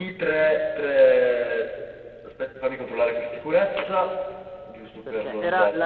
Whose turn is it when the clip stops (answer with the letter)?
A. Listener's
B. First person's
A